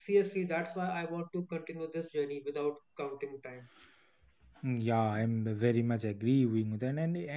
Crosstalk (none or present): none